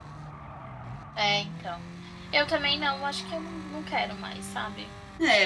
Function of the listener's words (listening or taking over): taking over